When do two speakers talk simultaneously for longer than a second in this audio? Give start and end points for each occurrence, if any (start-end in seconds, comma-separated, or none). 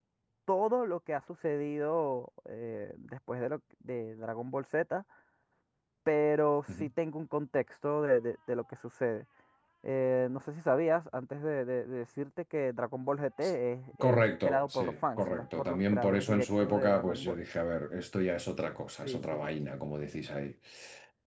14.0-17.4